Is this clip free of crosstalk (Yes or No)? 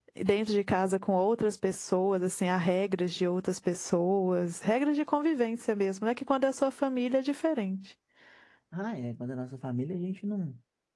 Yes